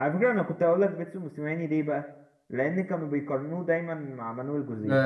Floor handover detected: Yes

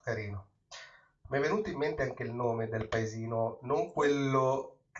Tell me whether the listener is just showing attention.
Yes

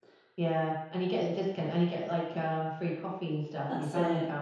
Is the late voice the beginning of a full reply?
Yes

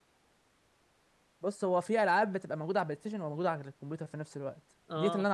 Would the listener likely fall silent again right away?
Yes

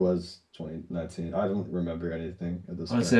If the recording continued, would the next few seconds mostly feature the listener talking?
Yes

